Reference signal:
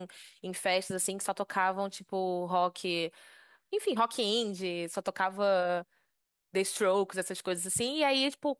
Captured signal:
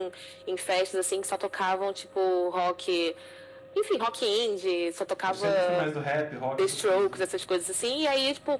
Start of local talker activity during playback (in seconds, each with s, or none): 5.2 s